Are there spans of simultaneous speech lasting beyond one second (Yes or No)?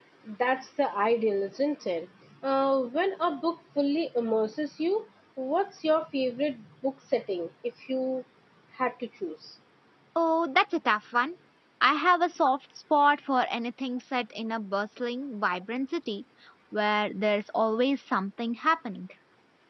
No